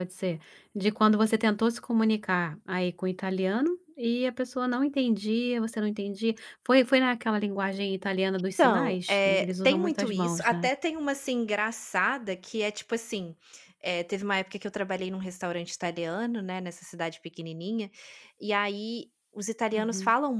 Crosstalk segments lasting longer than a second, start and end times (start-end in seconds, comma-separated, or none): 8.6-10.7